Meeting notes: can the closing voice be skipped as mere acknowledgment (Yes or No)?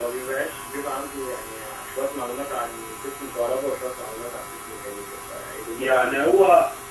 No